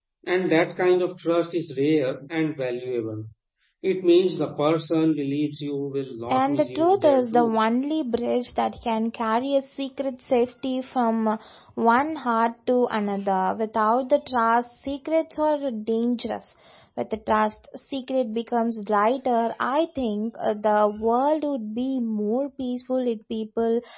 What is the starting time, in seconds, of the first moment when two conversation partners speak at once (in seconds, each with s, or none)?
6.3 s